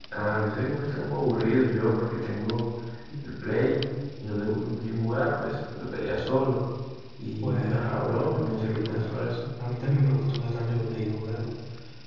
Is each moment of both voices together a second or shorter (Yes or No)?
No